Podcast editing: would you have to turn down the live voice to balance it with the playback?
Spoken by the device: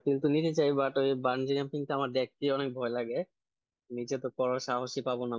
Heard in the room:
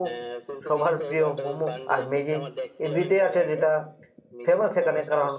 Yes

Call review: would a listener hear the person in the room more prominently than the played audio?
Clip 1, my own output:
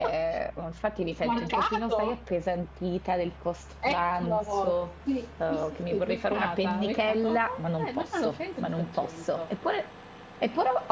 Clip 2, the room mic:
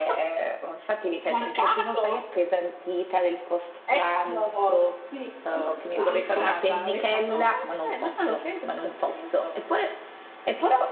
No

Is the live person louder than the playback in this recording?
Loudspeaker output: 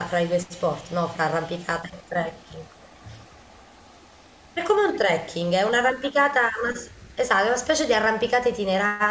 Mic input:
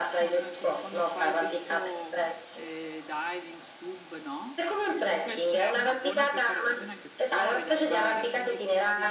No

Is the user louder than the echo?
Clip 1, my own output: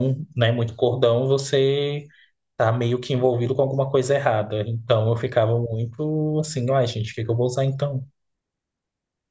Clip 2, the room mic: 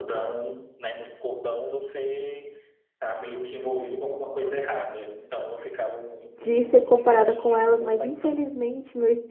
Yes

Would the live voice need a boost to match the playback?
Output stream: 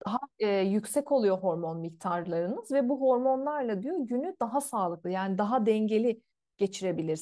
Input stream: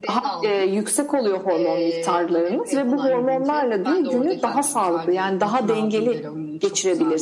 Yes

